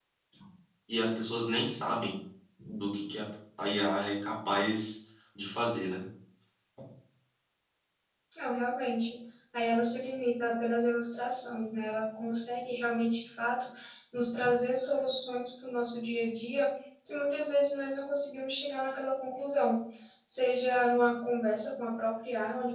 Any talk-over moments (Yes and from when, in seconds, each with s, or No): No